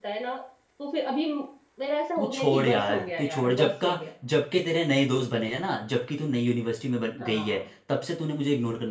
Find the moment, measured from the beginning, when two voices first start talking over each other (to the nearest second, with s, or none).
2 s